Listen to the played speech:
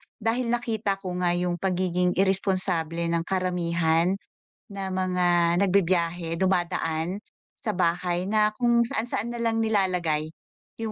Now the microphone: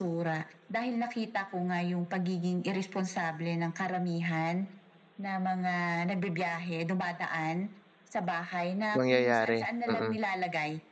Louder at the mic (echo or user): user